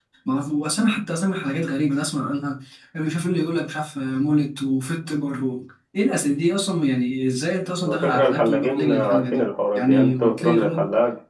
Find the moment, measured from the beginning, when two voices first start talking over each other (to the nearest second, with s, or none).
8 s